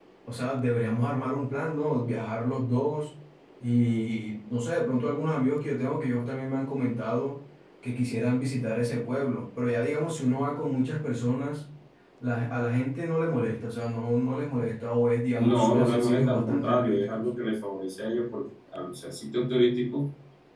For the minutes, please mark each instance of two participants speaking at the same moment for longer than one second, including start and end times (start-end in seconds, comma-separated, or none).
15.4-17.2